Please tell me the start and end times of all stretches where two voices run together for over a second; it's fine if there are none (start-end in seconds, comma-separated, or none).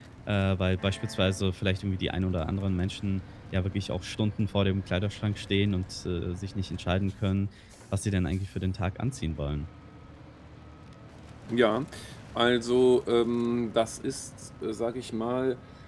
none